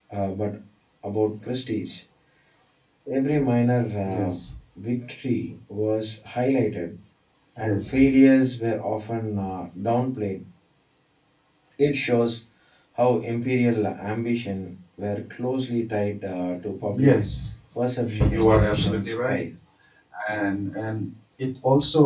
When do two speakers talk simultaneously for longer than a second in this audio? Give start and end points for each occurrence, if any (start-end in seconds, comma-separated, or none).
18.0-19.4